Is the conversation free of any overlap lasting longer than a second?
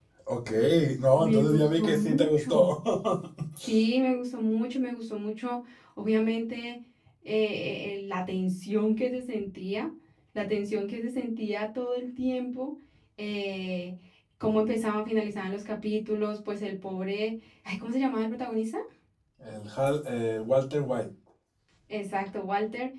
No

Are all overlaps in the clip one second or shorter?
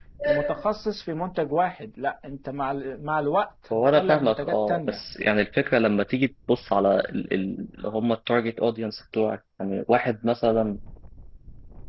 No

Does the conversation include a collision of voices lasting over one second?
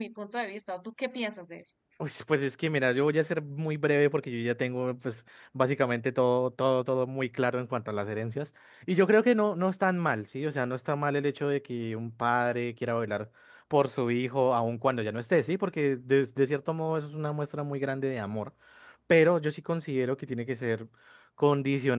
No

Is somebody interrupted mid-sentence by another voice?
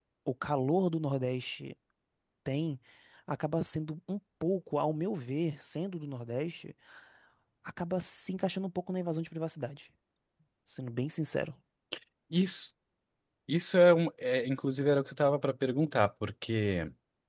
No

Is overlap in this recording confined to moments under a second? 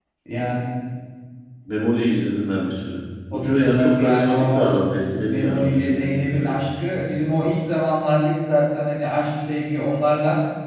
No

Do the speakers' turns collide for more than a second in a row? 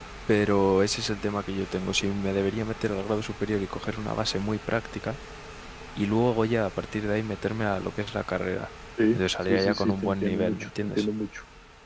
Yes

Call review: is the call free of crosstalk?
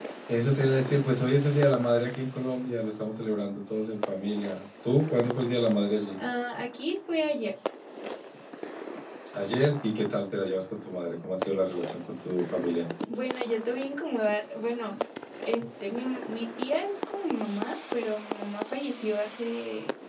Yes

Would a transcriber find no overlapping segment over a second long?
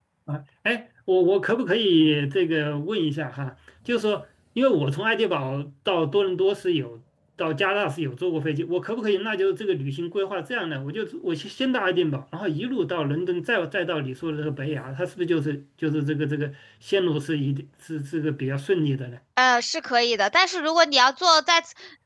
Yes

